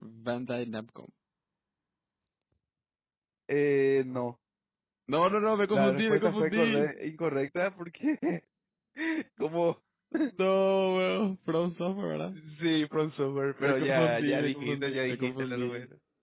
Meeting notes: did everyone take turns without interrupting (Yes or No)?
No